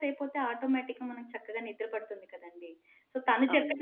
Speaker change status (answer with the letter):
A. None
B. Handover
A